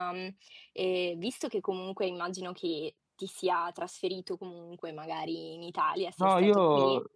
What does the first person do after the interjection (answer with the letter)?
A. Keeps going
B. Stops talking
B